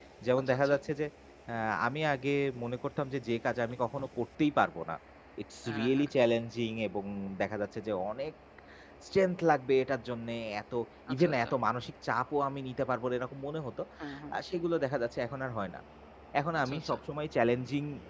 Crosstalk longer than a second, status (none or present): none